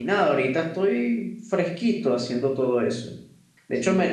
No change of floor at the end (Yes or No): Yes